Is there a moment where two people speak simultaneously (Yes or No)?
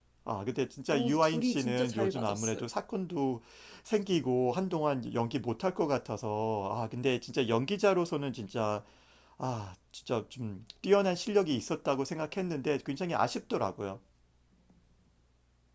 Yes